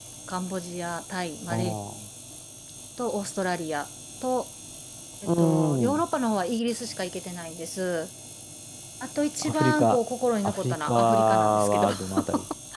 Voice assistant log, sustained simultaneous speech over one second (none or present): present